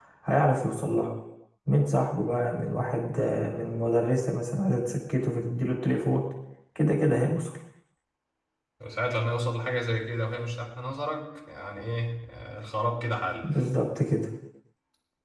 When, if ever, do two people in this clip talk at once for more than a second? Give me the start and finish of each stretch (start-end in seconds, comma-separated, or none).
none